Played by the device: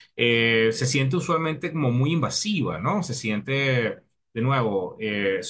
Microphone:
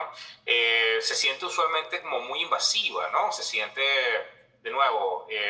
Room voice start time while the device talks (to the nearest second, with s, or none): none